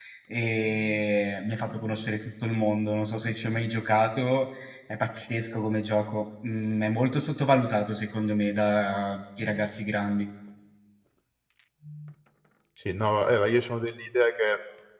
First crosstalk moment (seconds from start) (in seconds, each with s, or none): none